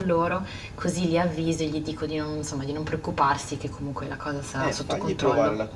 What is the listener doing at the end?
taking over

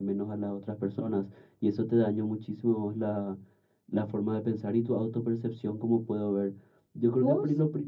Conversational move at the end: listening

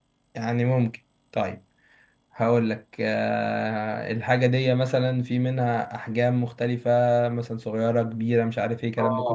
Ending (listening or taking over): taking over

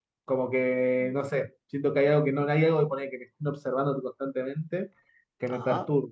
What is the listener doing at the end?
listening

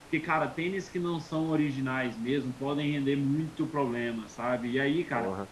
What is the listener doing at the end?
listening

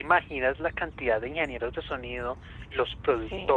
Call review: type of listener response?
listening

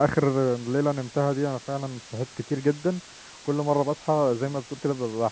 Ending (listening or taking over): listening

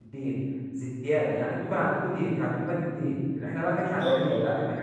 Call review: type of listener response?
listening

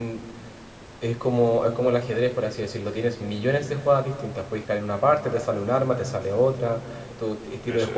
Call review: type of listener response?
listening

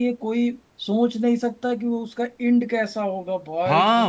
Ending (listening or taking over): taking over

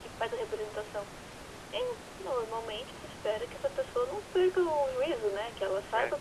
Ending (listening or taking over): listening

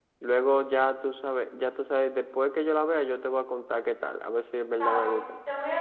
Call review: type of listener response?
taking over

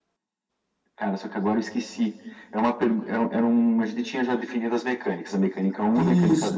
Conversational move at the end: taking over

